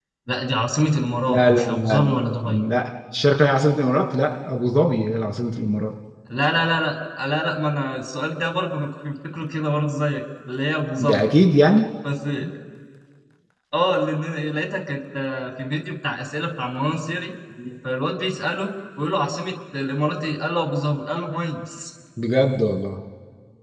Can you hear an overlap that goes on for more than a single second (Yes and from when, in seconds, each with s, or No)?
Yes, from 1.3 s